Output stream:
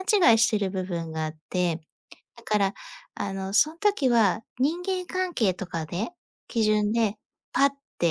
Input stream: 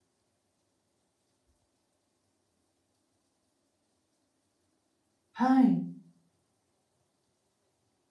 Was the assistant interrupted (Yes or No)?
Yes